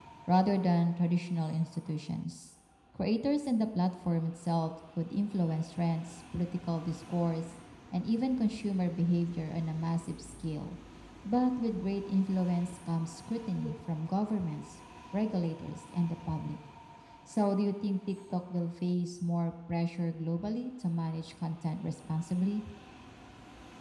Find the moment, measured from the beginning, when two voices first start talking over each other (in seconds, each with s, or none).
none